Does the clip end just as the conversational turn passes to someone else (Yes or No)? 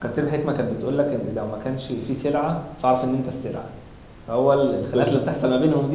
No